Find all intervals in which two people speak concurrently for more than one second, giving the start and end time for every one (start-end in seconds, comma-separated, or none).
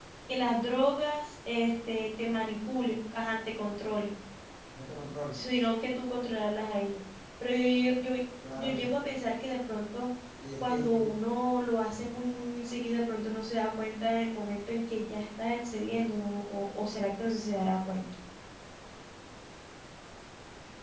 none